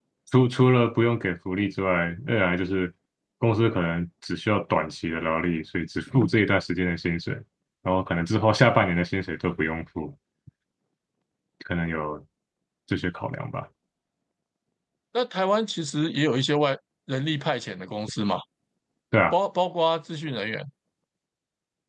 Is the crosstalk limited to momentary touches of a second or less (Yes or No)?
Yes